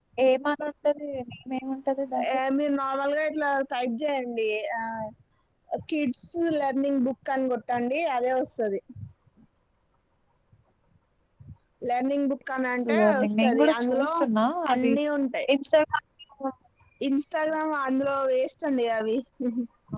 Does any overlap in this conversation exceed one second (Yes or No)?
Yes